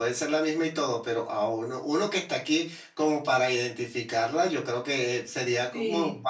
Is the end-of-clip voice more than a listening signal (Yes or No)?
No